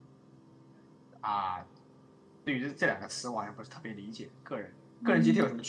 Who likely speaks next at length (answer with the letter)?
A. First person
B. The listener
B